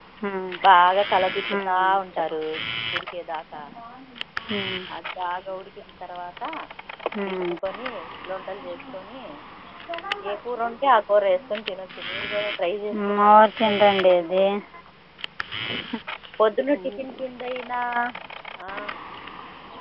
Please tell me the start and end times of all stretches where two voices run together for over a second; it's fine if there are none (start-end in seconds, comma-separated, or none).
13.2-14.4